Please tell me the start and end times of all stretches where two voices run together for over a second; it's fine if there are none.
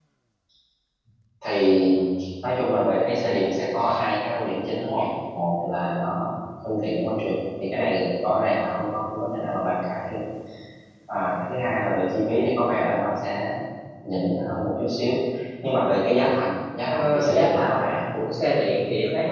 16.8-18.2

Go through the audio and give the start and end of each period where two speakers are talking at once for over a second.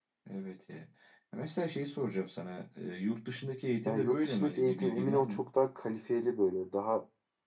3.9-5.5

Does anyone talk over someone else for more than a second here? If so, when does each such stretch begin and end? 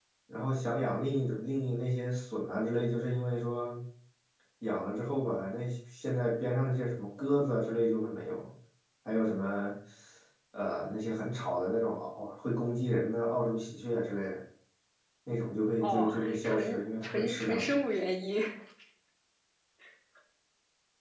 15.8-17.7

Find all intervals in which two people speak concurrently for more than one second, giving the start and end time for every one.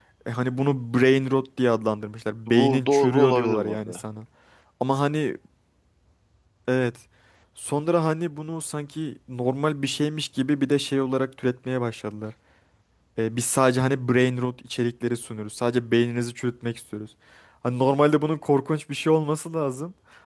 2.5-4.0

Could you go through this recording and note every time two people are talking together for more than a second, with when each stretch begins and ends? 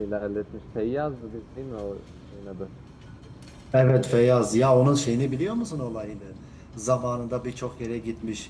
none

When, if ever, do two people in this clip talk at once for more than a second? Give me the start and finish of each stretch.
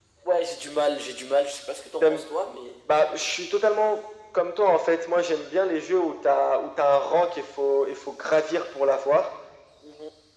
none

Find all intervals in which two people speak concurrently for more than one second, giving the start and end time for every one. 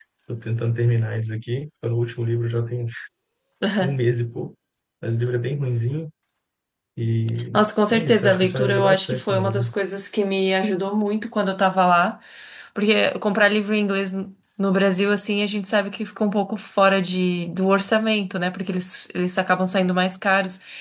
7.9-9.7

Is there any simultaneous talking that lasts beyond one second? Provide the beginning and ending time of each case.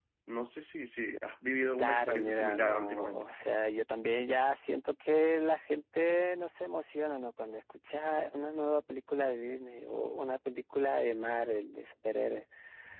1.8-3.2

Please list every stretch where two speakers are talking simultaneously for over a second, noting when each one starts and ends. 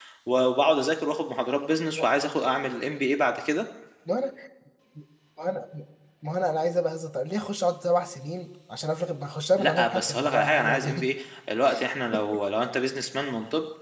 9.6-11.1

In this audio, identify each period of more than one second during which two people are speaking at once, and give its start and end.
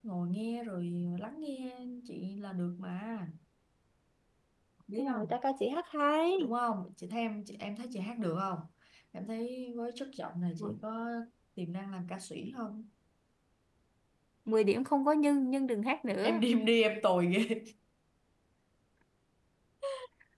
none

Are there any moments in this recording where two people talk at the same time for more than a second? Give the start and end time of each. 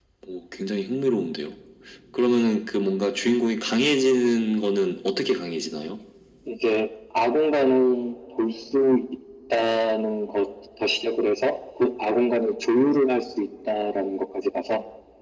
none

